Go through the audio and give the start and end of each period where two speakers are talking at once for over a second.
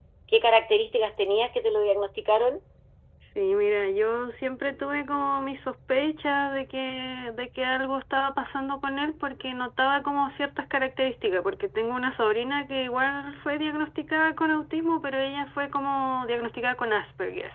none

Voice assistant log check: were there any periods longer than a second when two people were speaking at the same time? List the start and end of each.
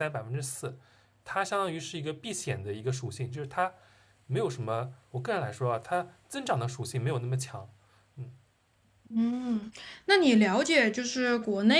none

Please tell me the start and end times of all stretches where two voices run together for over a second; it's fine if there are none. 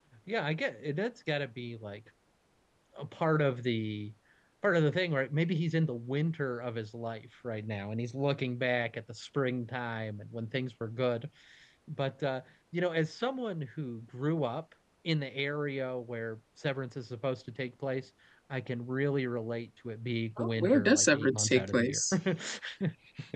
20.4-22.0

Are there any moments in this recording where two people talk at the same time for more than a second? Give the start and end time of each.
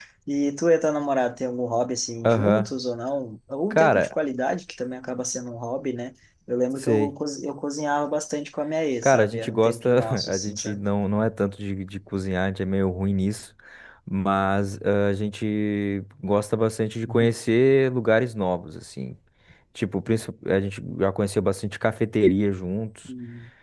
9.0-10.8

